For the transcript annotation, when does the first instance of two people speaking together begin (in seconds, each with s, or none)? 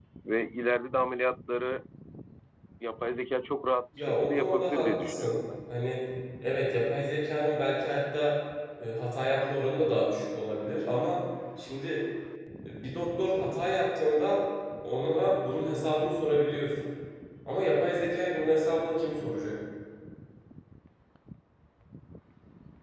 3.9 s